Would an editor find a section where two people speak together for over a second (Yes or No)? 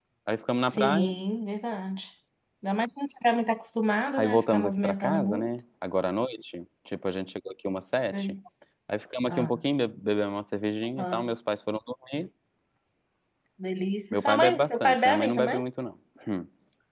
Yes